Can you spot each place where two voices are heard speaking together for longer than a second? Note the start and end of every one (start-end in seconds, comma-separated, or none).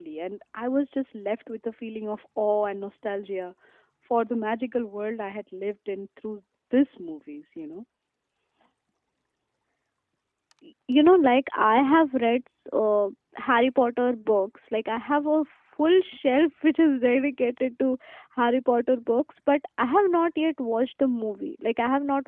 none